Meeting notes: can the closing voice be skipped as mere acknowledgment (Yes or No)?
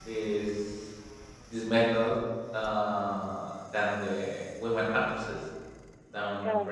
Yes